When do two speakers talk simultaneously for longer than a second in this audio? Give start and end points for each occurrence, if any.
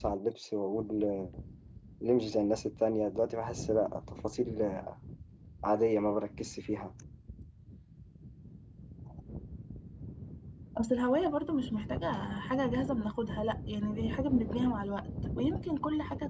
none

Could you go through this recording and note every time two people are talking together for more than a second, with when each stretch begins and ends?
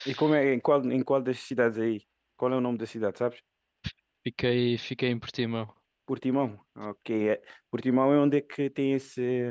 none

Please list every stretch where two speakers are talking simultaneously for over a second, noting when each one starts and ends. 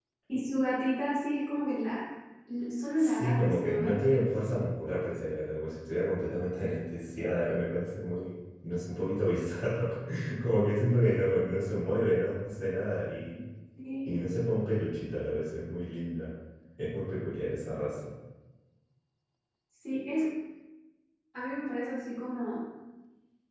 3.0-4.2

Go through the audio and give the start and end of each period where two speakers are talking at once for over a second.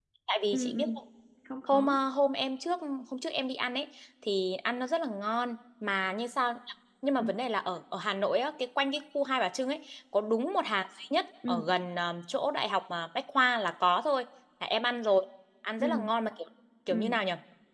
none

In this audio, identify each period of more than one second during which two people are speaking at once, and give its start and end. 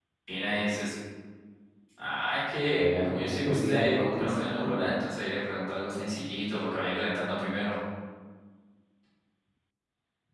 2.7-4.9

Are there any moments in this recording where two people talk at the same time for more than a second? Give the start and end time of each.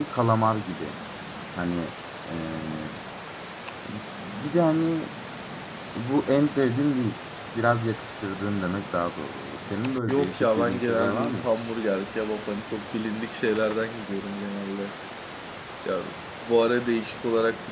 10.1-11.4

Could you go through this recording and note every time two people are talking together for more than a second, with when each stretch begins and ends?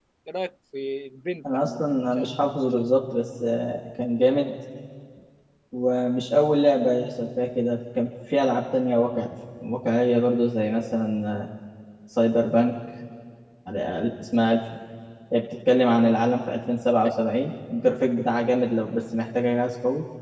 1.5-2.8

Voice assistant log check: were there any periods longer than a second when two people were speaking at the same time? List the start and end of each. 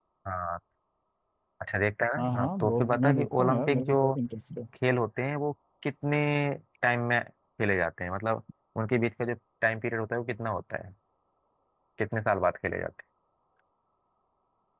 2.2-4.0

